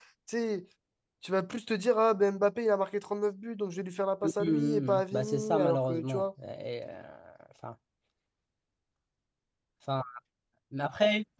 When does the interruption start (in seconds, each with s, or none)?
4.2 s